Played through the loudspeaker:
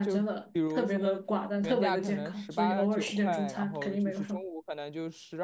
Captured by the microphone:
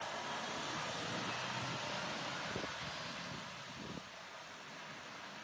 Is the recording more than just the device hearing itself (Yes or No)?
No